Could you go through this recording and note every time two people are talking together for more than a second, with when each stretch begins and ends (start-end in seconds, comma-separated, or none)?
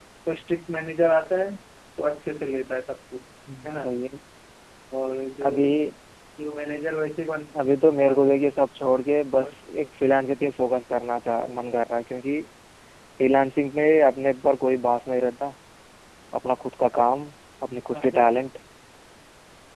none